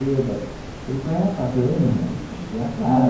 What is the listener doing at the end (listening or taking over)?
taking over